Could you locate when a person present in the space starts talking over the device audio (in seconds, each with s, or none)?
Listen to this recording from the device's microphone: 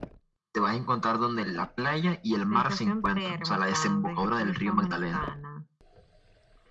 none